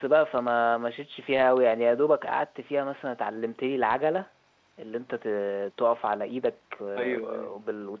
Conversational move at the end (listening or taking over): listening